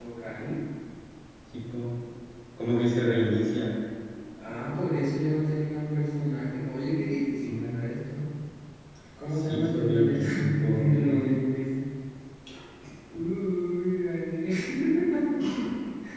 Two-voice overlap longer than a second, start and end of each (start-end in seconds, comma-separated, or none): 9.5-11.3